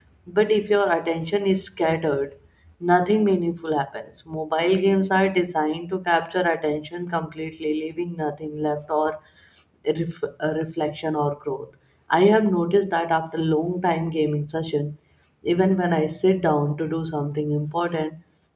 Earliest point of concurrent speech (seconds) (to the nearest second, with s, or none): none